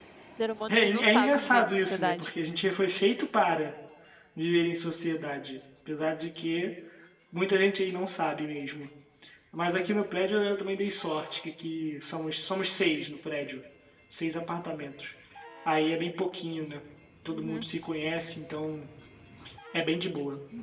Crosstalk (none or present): present